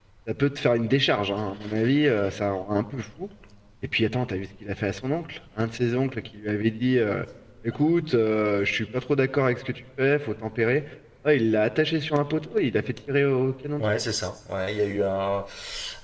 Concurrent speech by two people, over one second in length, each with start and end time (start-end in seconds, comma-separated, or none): none